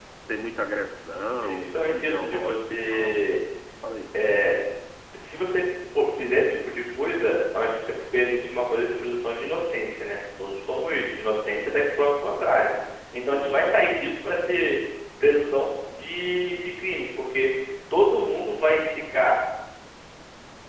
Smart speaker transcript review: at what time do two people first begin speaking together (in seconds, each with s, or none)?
1.4 s